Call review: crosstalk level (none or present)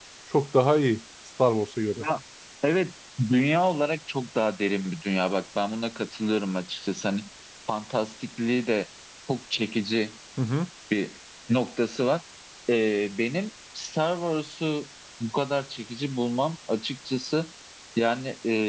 none